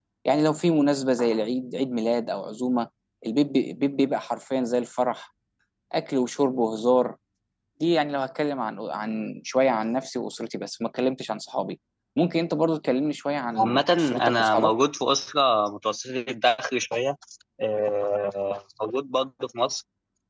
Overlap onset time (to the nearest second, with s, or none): 14 s